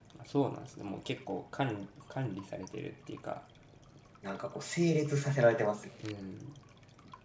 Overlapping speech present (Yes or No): No